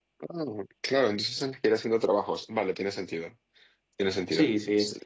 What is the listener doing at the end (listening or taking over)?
taking over